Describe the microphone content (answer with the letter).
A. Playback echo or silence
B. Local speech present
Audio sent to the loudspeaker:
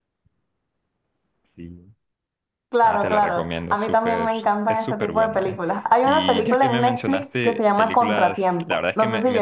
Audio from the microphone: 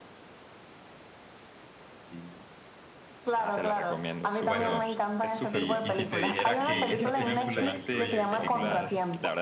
B